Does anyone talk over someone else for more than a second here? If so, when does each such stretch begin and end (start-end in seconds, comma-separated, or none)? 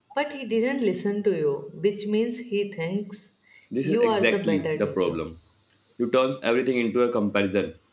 3.8-5.2